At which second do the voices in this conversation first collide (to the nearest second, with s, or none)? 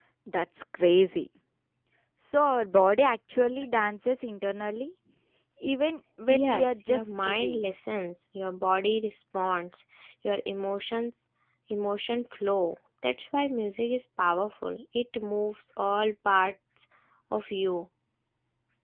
6 s